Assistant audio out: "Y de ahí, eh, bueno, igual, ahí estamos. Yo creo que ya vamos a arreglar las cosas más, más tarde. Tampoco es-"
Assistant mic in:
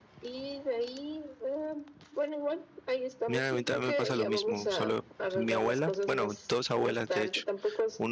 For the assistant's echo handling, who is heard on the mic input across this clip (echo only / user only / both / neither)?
both